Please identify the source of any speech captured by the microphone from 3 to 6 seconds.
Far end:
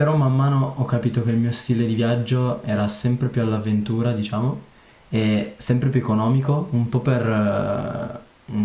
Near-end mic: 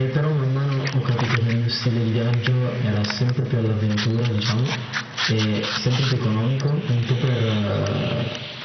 echo only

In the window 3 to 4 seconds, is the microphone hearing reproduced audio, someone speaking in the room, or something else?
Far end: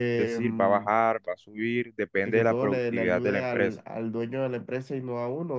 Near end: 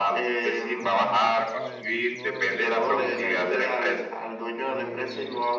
both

